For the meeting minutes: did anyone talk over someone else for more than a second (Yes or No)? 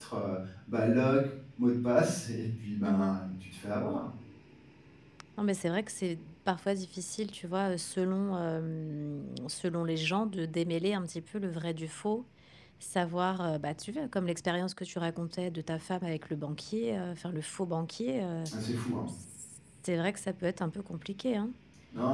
No